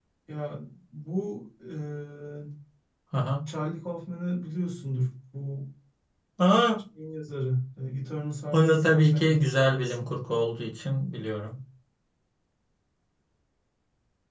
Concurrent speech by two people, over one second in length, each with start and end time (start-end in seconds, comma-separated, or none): 8.5-10.1